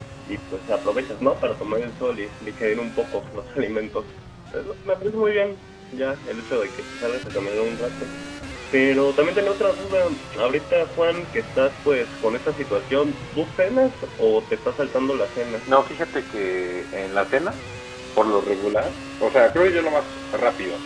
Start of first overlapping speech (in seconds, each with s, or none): none